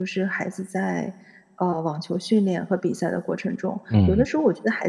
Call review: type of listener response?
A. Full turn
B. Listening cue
B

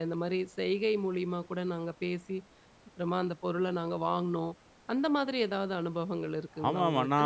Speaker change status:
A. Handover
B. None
A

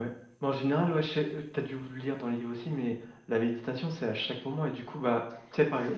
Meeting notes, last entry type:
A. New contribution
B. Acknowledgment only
B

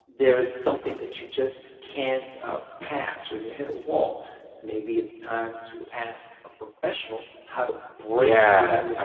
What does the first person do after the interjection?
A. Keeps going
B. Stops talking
B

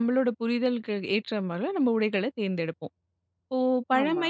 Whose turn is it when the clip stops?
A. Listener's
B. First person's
B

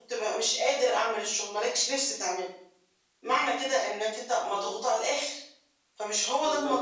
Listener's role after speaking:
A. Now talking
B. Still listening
A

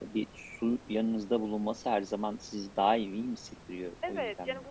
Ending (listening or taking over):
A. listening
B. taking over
B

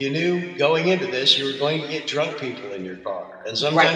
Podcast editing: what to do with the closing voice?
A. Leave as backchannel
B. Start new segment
B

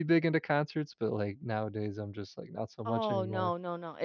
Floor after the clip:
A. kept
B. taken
B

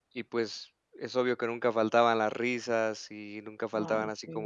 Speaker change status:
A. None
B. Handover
A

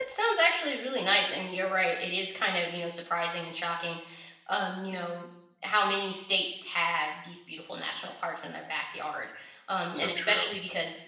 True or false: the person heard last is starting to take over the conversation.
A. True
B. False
B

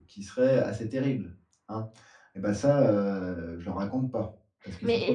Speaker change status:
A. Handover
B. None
A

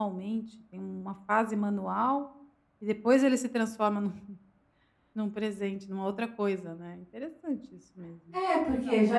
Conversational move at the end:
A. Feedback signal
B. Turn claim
B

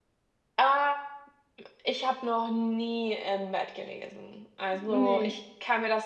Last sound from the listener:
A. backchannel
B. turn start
A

